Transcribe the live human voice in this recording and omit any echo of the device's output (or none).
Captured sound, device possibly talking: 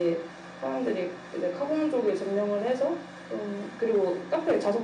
none